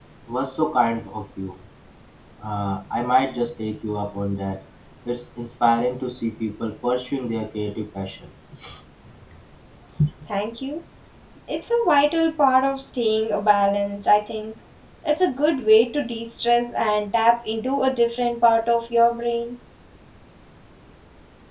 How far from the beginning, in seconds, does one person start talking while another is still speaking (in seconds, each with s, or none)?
none